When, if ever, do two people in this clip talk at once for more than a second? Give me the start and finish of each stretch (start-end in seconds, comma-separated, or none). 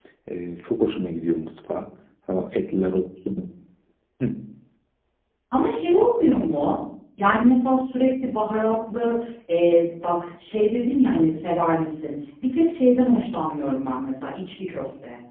none